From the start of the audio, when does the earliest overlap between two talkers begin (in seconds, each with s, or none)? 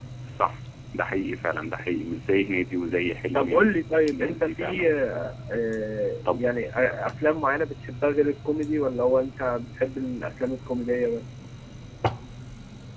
3.3 s